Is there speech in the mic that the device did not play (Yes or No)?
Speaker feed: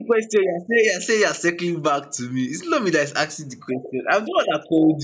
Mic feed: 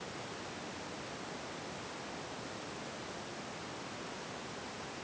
No